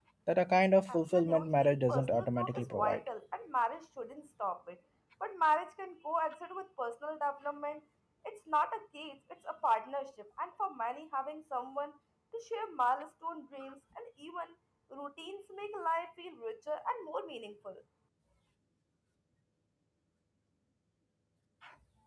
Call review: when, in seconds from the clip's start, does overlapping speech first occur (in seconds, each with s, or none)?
0.9 s